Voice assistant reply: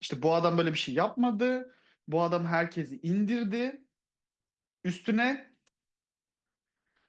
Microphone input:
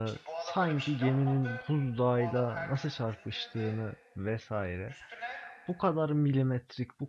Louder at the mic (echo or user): user